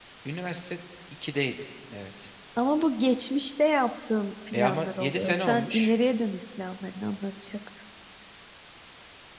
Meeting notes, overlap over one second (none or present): present